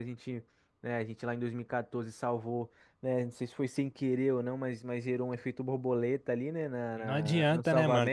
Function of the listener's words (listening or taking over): taking over